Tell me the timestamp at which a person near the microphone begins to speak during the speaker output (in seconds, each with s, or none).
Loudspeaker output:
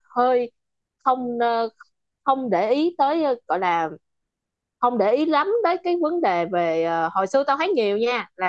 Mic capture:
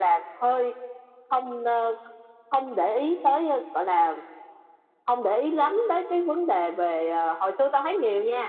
none